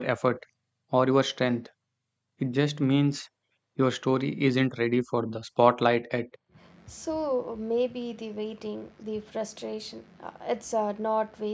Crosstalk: none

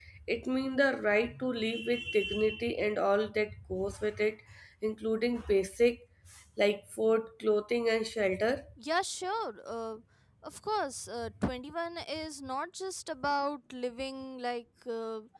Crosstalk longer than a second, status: none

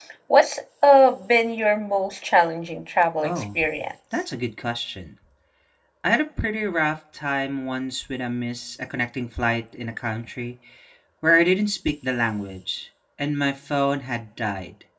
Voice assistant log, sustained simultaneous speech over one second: none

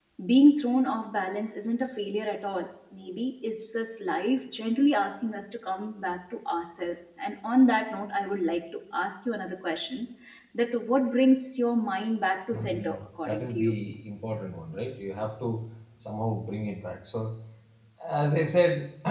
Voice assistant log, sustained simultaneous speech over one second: present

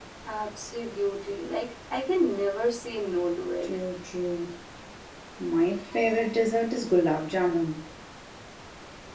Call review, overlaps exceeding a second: none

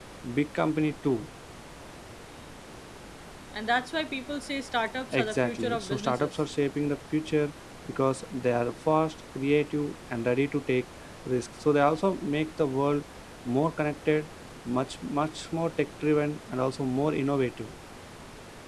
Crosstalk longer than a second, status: present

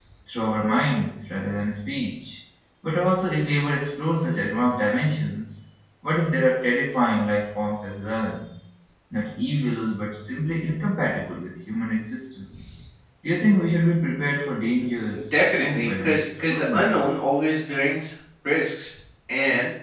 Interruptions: present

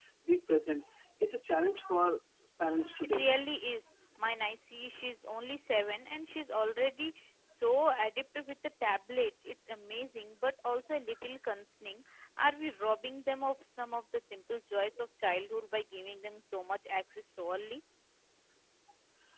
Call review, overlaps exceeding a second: none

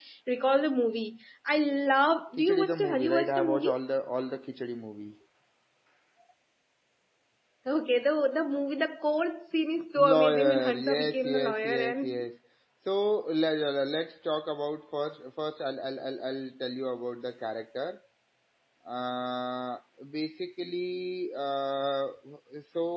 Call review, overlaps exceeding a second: present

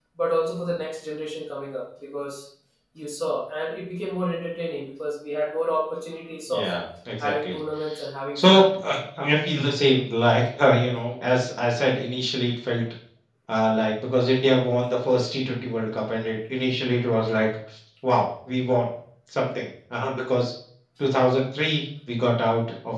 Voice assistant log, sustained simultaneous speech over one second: none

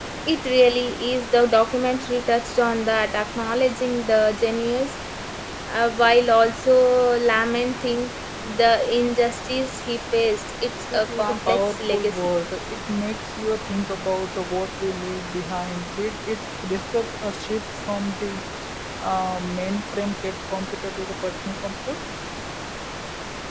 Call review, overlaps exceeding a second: present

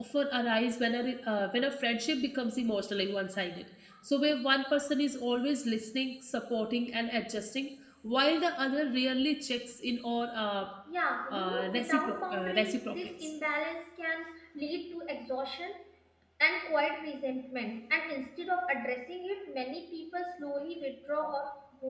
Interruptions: present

